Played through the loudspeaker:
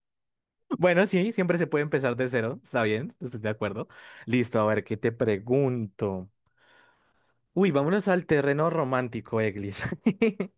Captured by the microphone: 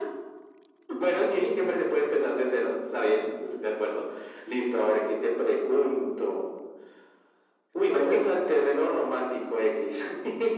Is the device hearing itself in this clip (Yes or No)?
Yes